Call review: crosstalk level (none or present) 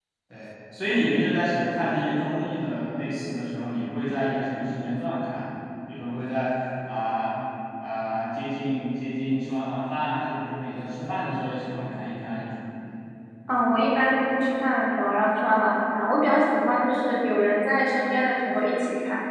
none